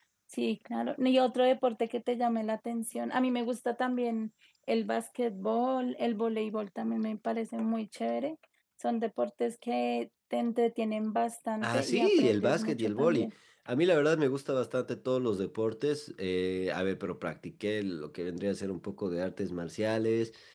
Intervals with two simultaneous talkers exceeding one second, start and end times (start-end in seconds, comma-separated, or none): 11.6-13.3